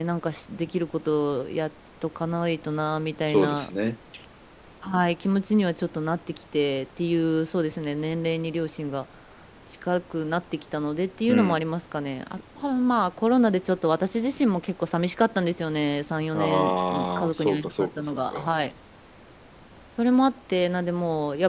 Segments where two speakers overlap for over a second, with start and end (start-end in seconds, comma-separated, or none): 16.3-18.5